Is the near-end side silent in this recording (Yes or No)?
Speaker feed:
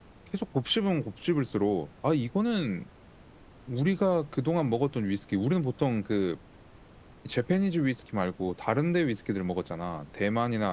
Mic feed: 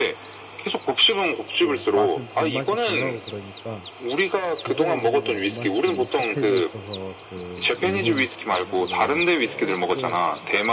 No